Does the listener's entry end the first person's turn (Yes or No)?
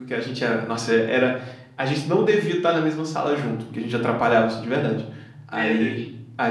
No